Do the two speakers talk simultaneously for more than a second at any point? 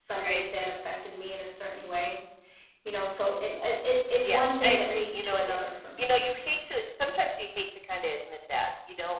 Yes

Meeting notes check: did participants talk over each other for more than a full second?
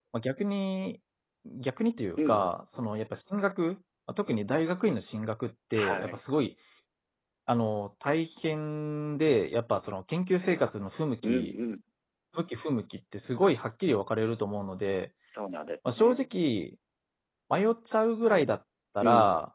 No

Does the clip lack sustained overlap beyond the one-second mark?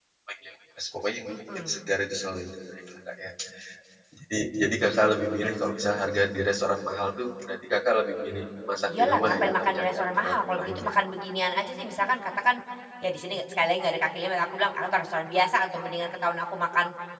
No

